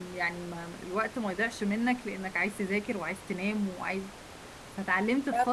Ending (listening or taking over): listening